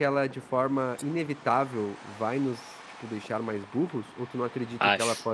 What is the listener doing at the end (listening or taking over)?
listening